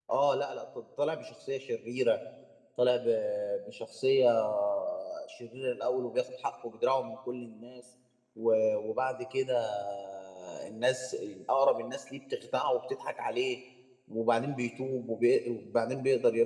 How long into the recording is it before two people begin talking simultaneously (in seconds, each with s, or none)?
none